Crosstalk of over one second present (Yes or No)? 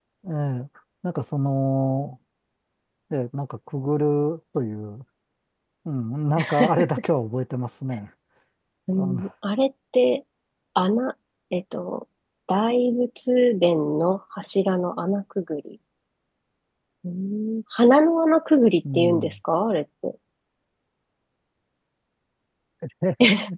No